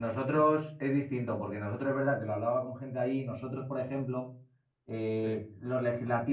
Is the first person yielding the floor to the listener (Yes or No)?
No